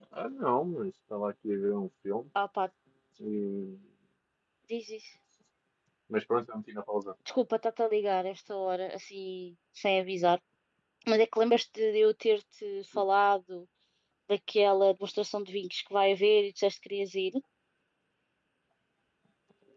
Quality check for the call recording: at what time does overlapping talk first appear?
none

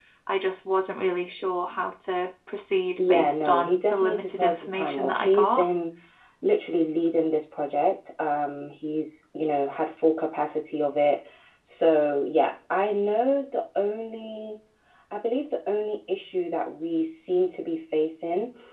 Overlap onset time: 3.0 s

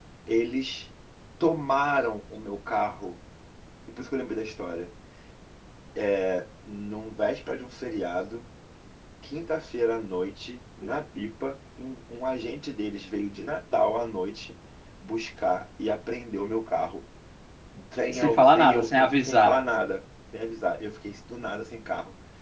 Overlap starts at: 18.1 s

